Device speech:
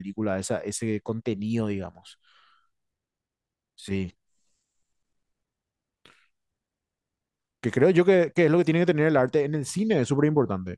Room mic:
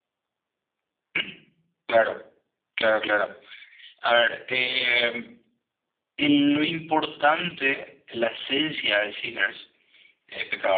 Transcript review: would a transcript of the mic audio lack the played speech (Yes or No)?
Yes